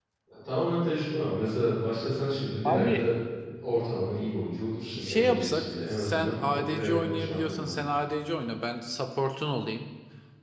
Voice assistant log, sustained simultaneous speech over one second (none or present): present